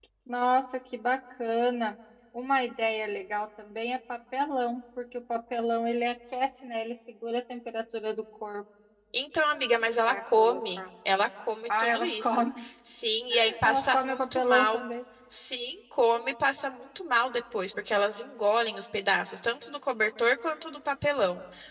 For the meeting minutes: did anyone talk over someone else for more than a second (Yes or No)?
Yes